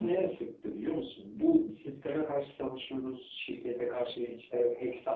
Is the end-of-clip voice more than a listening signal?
No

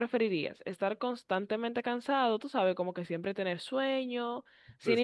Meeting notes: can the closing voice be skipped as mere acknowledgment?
Yes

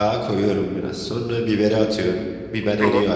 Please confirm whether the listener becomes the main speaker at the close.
No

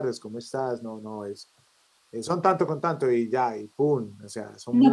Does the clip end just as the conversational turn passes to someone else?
Yes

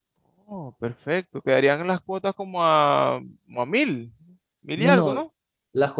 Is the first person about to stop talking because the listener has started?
Yes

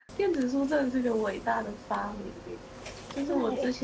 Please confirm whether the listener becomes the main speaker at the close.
No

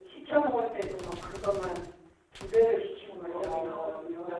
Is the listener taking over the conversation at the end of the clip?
Yes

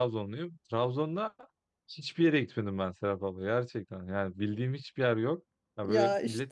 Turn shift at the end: No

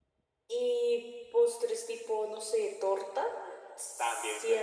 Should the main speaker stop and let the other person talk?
Yes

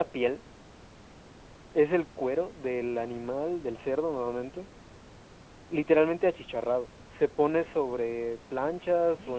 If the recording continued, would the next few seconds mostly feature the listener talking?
No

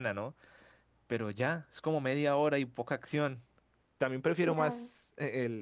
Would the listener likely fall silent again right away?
Yes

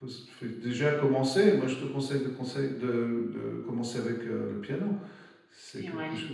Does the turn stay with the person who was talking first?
No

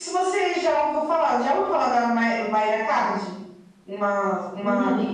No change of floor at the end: Yes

